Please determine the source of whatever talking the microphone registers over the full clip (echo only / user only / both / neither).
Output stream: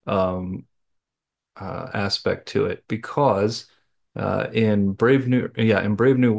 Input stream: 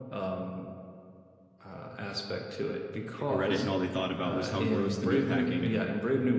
both